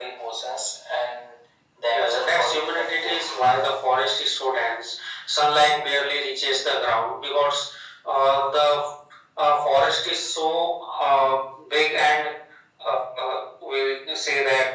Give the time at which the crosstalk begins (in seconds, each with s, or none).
1.9 s